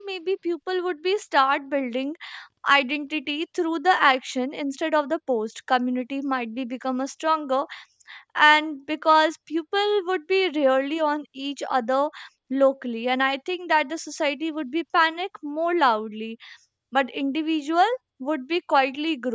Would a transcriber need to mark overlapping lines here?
No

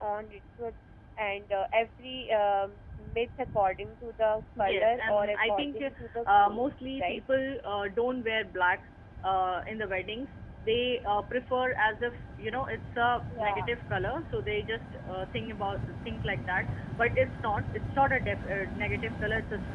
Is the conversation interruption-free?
No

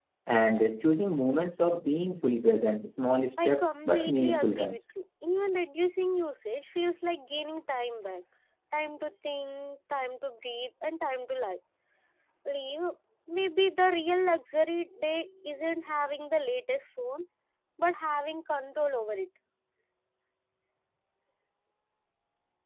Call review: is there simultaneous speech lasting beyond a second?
Yes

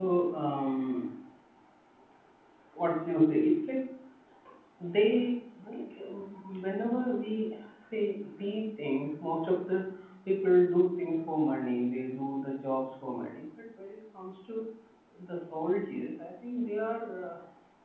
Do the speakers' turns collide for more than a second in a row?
No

